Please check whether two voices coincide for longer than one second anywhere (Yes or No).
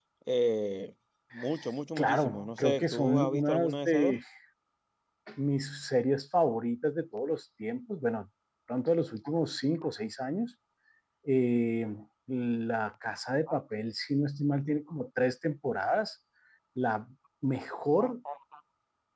Yes